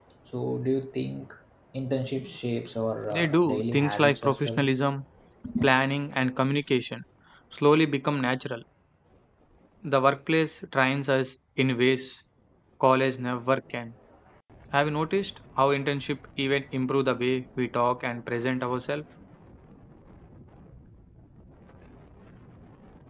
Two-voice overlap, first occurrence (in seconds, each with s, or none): 3.1 s